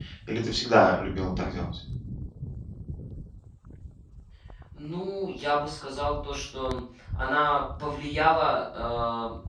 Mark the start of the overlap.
none

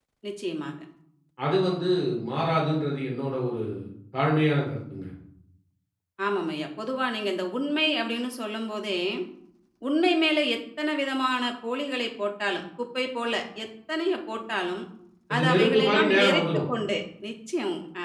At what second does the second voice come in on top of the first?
15.3 s

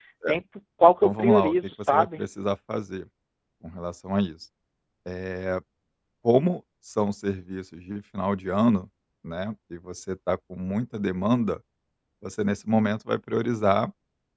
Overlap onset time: 1.0 s

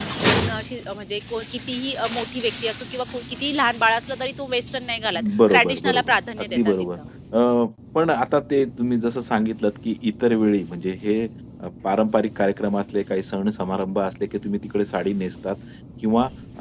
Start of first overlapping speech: 5.1 s

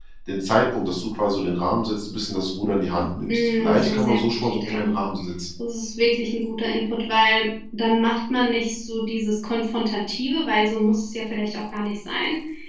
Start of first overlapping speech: 3.2 s

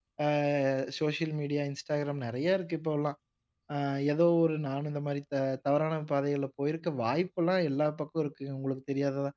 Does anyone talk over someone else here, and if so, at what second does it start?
none

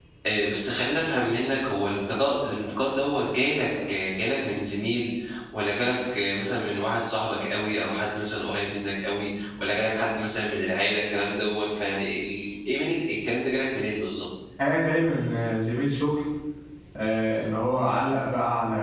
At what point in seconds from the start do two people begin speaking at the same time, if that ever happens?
none

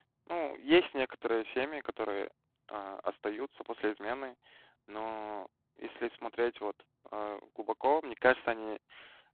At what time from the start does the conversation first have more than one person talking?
none

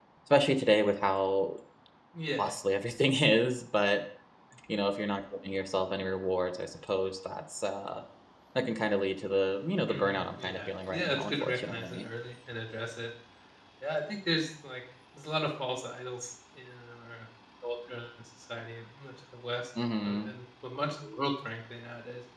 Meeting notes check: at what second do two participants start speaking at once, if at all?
9.9 s

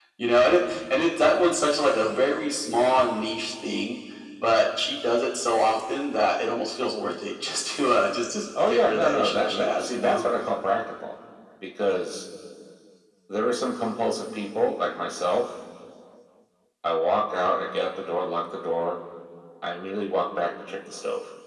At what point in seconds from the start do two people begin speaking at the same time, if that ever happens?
8.6 s

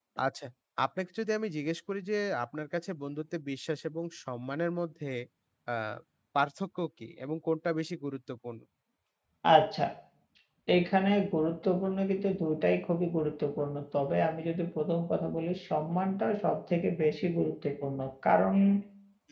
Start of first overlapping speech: none

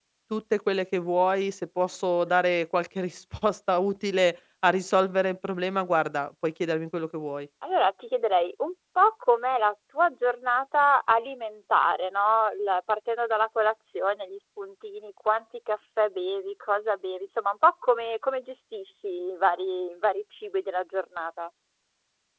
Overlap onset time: none

